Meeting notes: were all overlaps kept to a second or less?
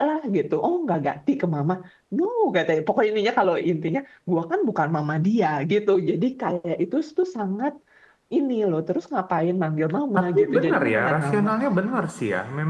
No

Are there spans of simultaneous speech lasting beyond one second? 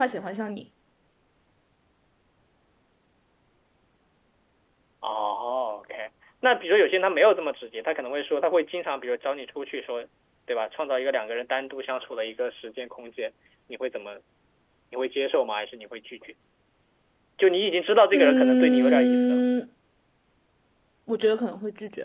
Yes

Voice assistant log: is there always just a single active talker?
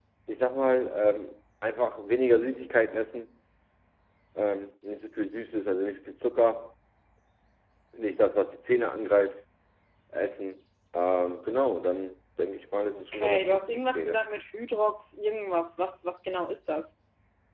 No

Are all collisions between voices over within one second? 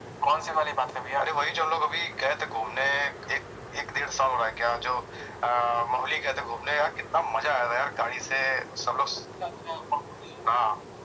Yes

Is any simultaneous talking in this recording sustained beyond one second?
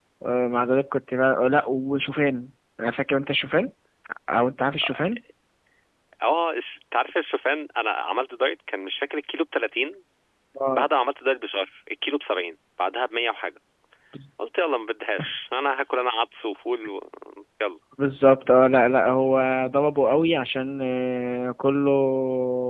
No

